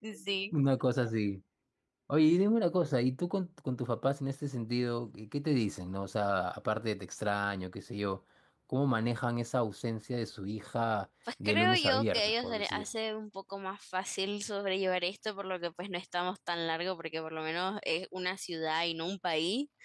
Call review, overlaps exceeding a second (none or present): present